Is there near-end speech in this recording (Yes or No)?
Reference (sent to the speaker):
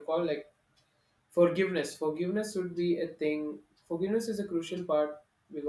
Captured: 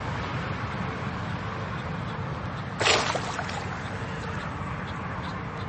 No